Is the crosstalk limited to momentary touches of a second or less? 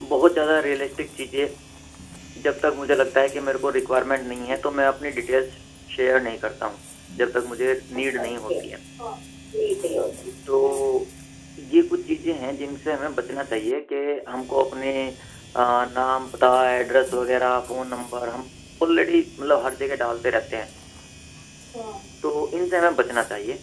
Yes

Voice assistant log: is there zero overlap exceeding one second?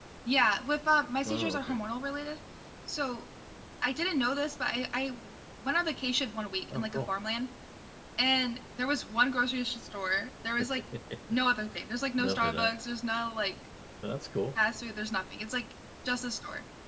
Yes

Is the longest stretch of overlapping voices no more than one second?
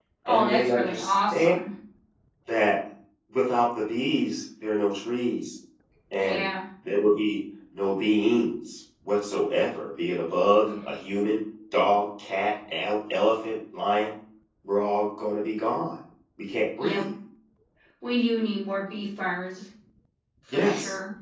No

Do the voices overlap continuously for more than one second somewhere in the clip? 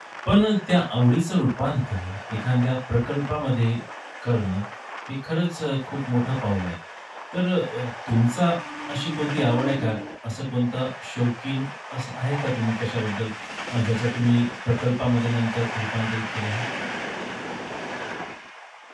No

